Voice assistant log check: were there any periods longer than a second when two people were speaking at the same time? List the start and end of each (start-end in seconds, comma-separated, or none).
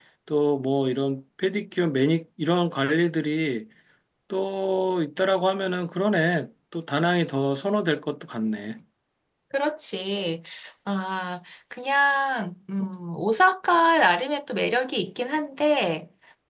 none